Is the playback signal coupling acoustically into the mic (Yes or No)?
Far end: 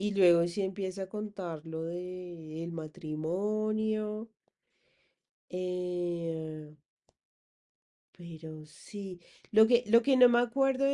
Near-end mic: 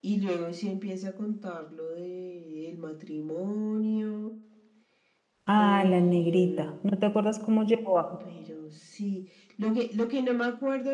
Yes